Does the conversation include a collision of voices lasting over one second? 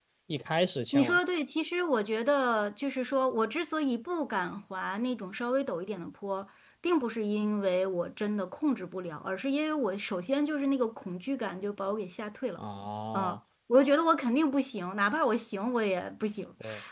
No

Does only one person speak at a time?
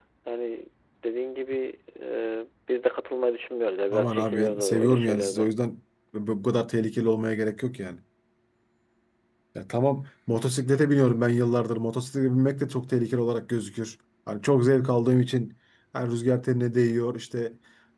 No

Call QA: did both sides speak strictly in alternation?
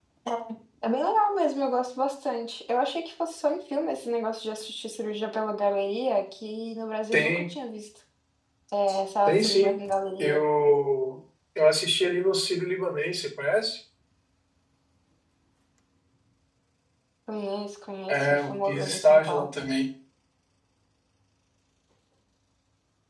No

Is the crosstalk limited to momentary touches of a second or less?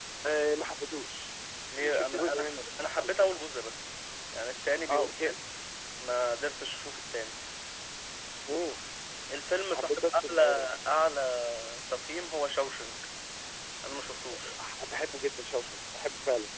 No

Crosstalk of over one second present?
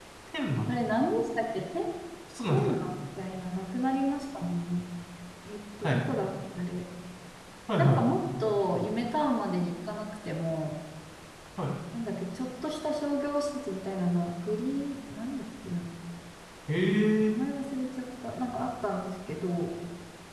No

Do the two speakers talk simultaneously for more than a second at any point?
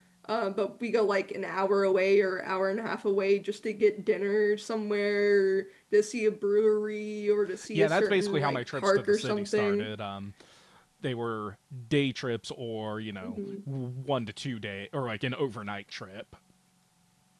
Yes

